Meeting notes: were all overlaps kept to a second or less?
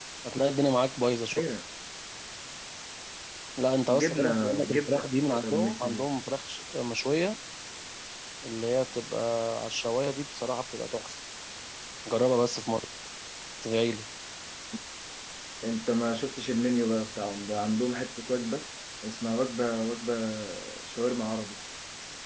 No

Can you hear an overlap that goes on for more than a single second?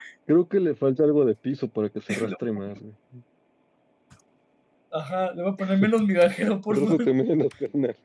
No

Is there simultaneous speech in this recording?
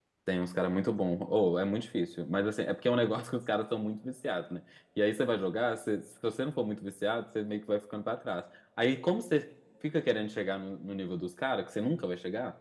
No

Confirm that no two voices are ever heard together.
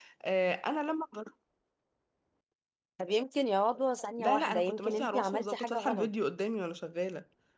No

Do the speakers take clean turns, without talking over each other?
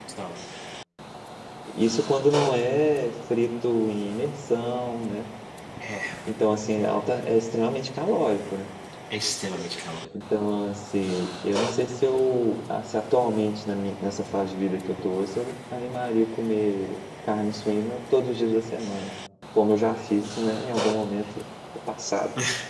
Yes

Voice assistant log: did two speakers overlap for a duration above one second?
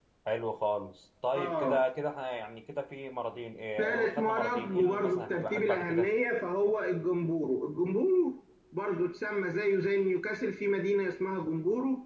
Yes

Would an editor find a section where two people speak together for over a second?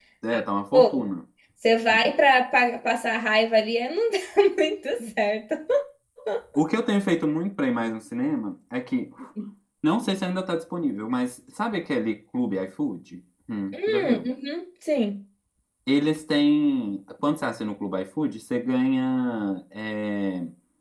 No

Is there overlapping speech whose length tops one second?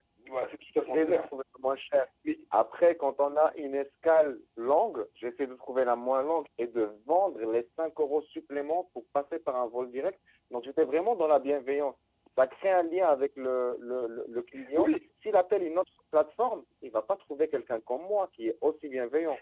No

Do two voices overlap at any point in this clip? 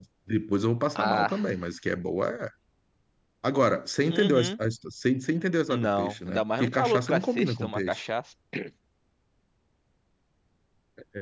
Yes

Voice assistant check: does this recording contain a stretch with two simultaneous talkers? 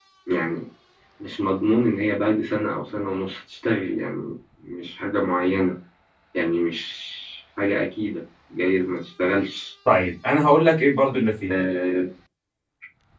No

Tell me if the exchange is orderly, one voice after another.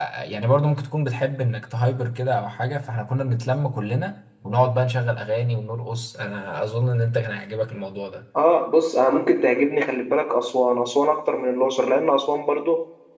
Yes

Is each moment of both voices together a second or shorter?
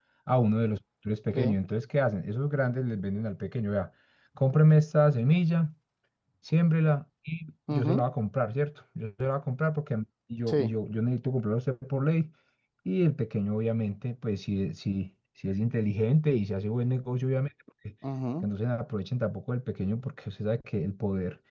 Yes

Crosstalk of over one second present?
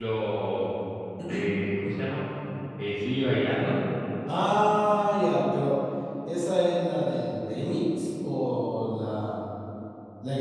No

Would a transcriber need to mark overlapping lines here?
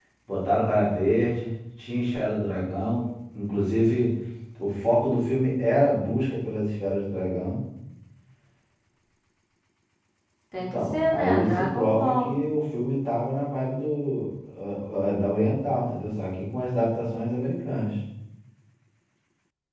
Yes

